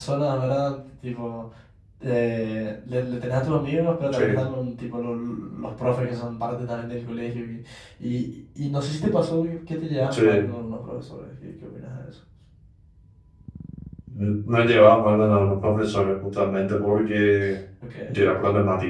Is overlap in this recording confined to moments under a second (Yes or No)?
Yes